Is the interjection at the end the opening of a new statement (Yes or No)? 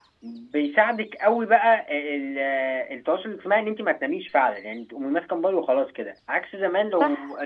No